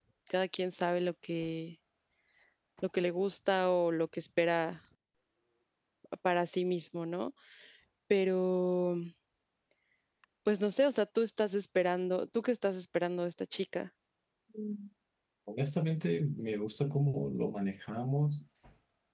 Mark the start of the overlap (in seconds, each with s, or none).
none